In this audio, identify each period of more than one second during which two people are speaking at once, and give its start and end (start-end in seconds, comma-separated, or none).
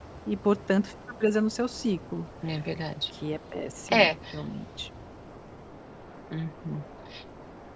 none